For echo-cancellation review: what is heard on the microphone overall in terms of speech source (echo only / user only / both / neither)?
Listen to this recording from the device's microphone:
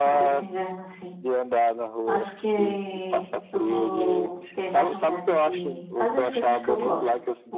both